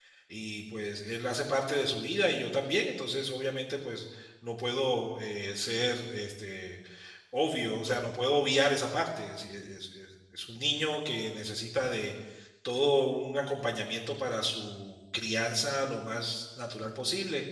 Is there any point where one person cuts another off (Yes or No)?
No